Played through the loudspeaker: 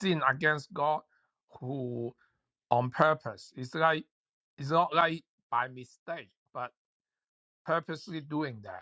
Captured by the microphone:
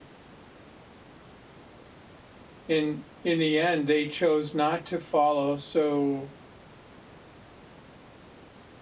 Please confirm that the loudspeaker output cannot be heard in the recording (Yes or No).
Yes